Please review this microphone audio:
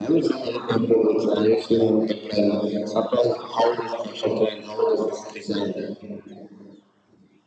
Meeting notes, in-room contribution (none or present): none